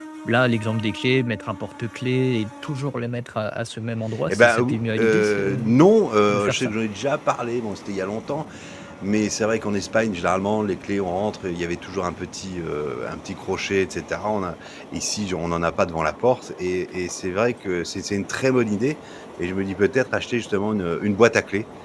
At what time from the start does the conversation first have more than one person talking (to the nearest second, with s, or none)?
4 s